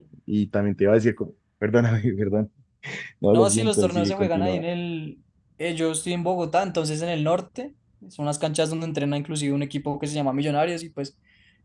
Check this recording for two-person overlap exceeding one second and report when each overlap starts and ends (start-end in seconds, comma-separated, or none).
3.3-4.6